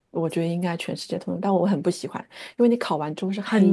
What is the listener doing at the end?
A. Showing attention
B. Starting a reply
A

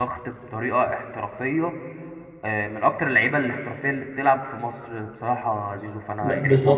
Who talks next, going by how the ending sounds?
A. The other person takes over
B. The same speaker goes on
A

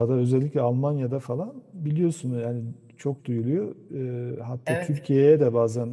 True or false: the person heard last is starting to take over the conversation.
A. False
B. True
A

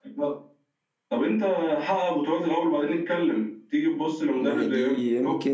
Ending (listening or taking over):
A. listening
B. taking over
B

